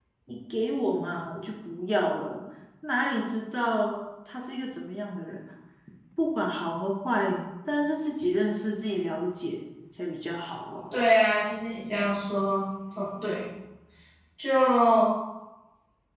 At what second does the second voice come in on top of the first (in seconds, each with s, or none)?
none